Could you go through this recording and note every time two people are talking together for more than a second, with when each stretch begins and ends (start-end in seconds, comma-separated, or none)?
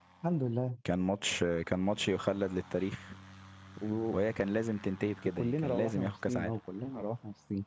5.2-6.5